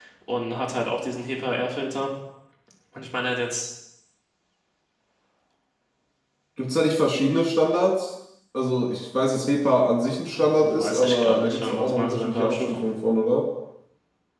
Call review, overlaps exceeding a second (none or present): present